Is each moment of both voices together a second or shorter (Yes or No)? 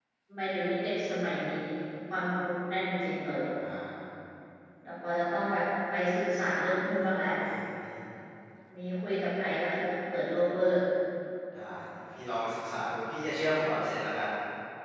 Yes